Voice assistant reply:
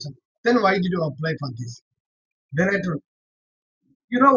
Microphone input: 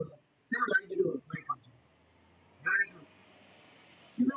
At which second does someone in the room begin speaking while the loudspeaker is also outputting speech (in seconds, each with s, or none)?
none